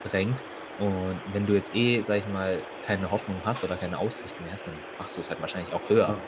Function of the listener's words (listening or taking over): taking over